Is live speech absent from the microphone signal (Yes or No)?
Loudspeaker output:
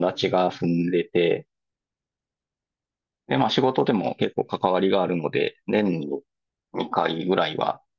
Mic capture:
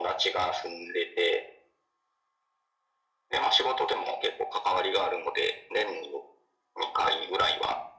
Yes